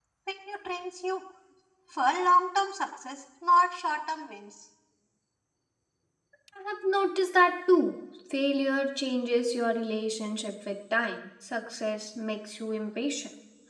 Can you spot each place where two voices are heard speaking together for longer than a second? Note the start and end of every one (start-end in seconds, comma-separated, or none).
none